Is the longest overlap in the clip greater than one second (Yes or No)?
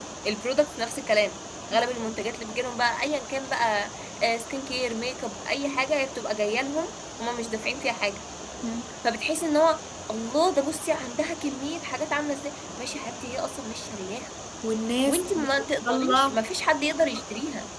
Yes